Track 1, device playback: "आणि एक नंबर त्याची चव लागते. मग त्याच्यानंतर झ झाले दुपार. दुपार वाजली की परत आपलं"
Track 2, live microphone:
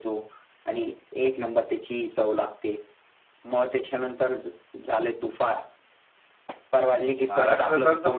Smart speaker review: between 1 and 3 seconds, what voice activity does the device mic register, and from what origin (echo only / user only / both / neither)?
echo only